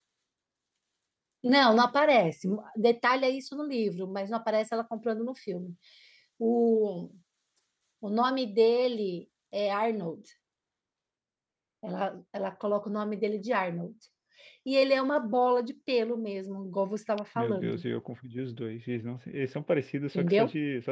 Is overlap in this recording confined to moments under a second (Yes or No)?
Yes